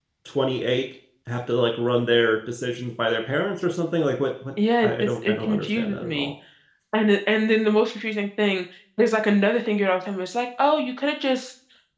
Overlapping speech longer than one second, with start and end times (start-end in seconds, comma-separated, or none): 4.8-6.3